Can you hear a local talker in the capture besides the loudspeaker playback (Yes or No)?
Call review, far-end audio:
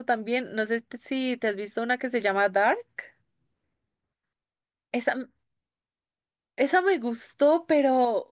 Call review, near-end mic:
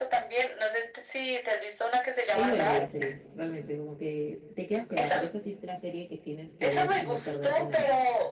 Yes